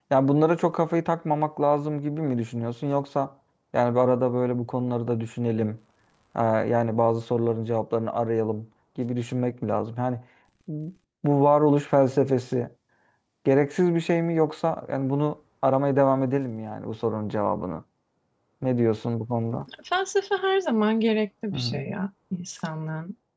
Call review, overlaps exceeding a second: none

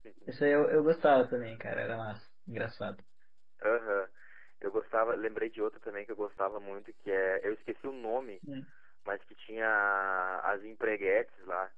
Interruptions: none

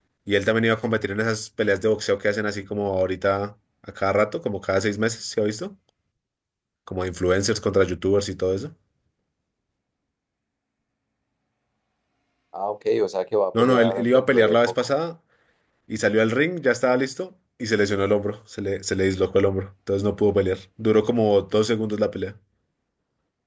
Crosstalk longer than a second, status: present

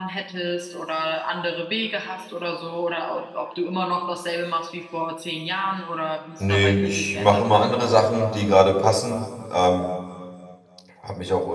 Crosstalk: present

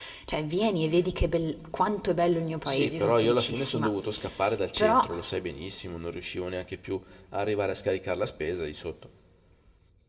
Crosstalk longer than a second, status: present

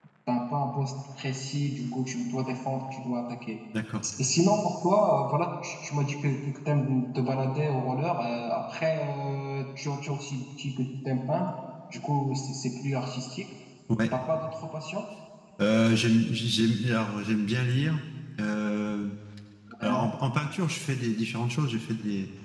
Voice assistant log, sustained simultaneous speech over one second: none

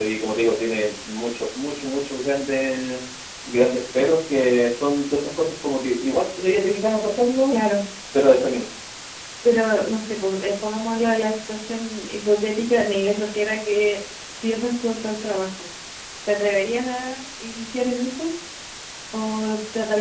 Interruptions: none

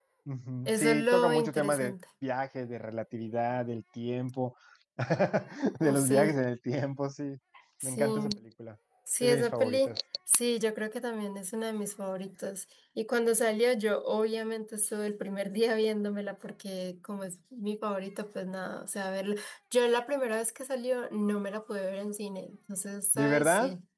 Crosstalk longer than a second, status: present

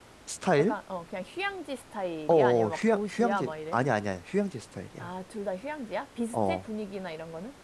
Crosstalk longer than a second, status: present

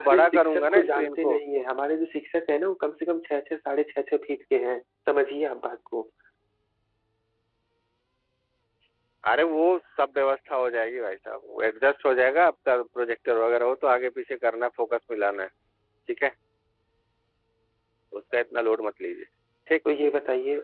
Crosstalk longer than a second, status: present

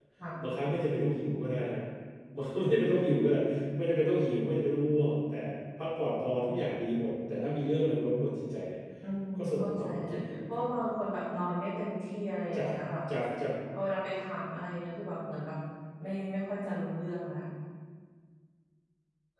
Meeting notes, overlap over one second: present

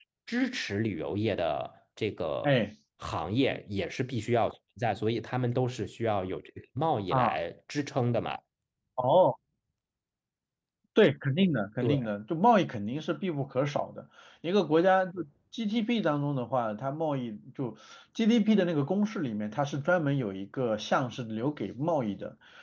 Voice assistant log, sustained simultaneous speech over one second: none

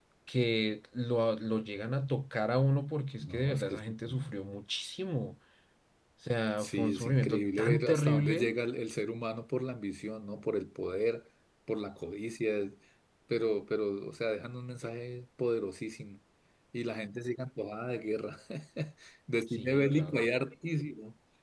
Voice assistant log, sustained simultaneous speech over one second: present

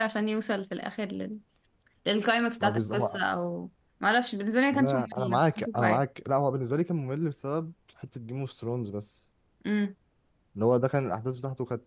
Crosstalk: present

